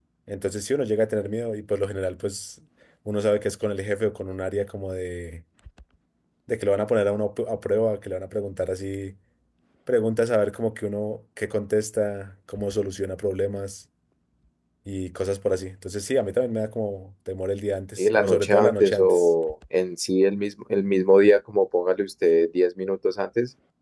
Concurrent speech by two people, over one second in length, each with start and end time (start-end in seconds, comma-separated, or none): 18.0-19.3